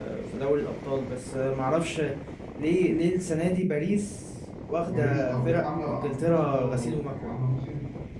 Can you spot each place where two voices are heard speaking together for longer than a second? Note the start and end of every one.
4.8-7.3

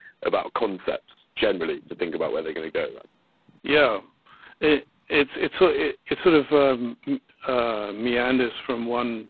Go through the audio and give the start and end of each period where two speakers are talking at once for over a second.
none

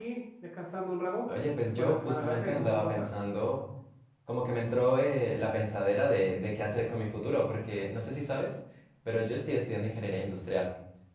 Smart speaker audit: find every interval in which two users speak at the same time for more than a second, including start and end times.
1.8-3.1

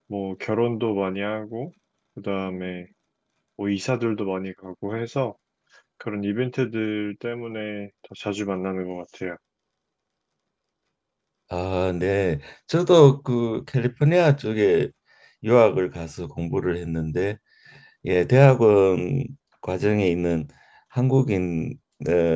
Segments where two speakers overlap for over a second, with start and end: none

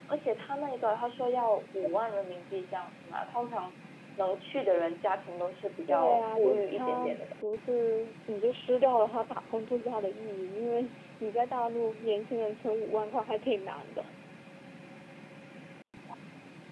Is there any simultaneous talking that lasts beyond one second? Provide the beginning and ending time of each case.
5.9-7.2

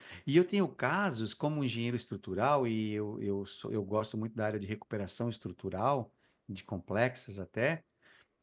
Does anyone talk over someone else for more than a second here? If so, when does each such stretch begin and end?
none

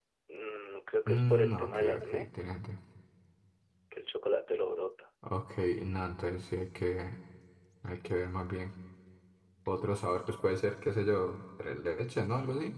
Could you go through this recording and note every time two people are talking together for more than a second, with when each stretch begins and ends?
1.1-2.3

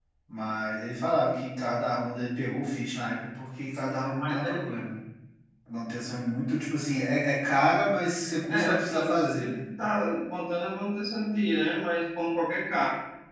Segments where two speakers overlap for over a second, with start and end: 8.5-9.7

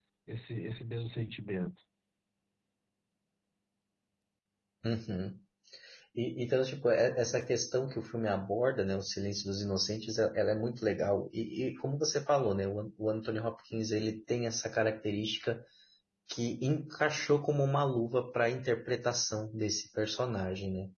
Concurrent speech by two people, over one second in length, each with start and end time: none

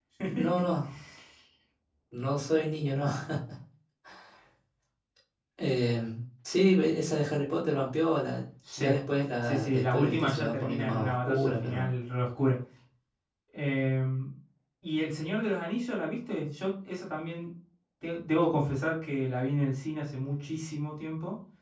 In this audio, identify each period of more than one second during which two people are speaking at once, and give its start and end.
9.4-11.9

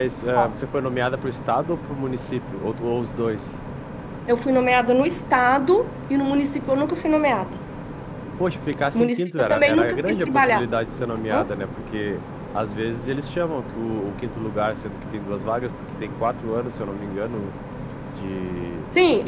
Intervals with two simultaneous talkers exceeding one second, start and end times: 8.9-10.6

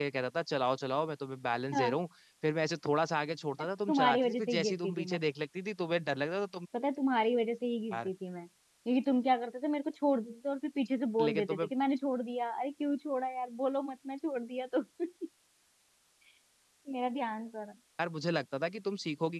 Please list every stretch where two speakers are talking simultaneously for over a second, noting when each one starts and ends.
3.9-5.2

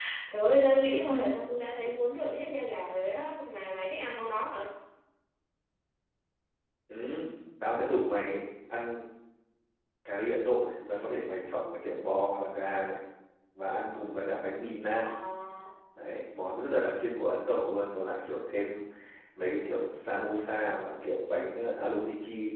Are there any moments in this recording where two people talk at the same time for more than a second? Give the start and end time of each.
none

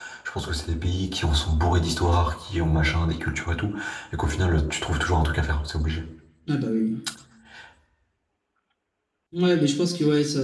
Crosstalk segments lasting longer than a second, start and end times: none

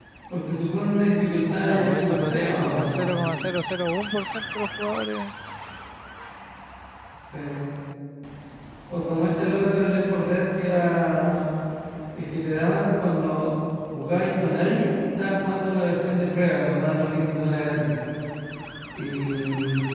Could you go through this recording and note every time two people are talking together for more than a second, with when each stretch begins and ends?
1.7-2.9

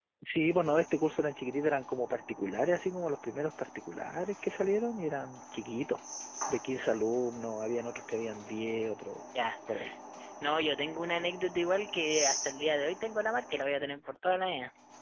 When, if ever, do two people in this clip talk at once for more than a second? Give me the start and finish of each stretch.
none

